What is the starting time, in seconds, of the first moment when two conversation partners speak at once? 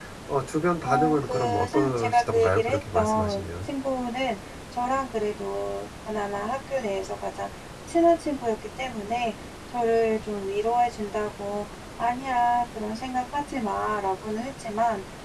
0.8 s

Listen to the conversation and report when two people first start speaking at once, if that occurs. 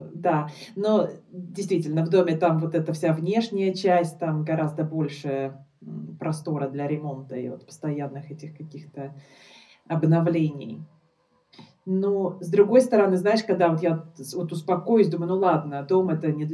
none

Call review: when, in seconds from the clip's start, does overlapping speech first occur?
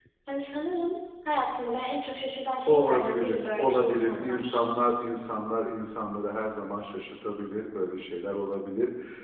2.7 s

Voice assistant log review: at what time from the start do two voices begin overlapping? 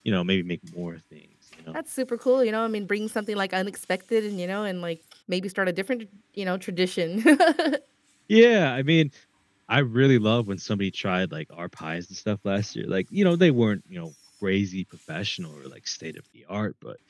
none

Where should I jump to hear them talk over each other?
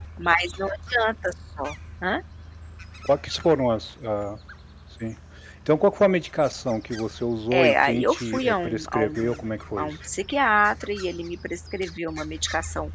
7.5 s

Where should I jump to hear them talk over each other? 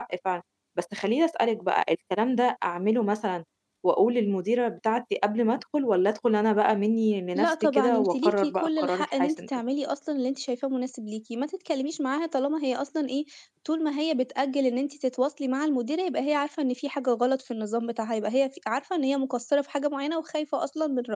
7.3 s

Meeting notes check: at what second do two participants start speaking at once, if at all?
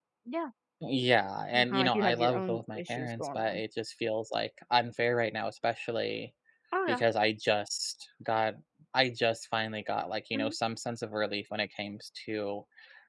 1.5 s

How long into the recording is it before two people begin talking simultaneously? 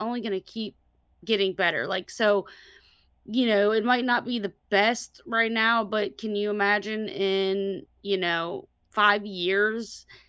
none

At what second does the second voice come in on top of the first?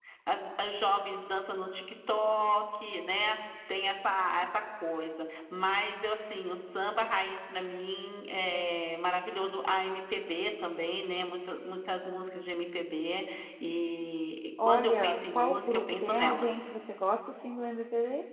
14.6 s

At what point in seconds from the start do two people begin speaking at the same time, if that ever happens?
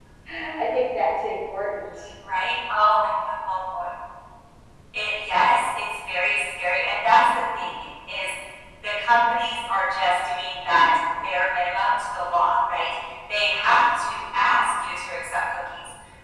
none

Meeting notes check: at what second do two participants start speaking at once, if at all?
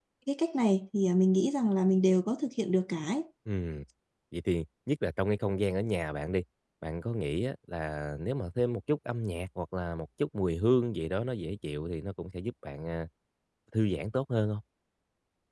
none

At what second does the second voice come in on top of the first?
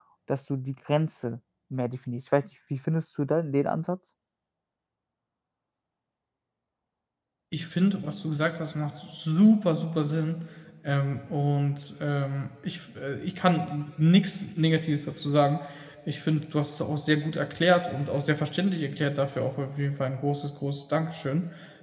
none

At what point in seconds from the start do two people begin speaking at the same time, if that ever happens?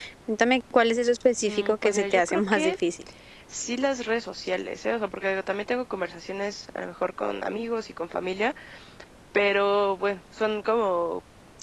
1.4 s

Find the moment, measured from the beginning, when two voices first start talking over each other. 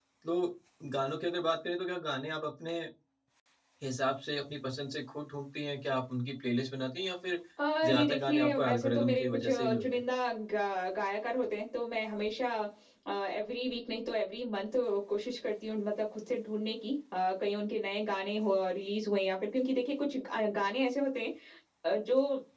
7.8 s

